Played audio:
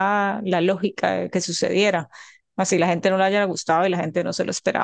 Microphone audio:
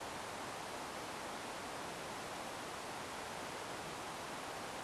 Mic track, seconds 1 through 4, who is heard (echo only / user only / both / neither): neither